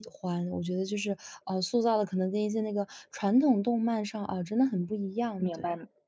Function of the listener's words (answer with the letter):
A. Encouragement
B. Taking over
B